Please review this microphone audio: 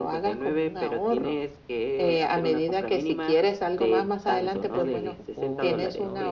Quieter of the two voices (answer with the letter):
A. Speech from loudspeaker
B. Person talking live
B